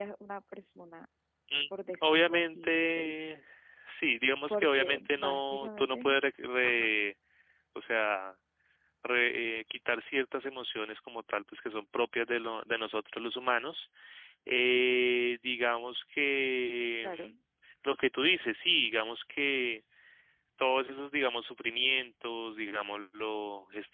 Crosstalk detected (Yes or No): Yes